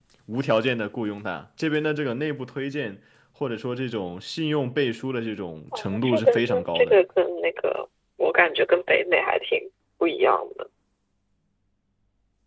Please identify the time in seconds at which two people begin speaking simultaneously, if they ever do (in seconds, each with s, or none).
5.7 s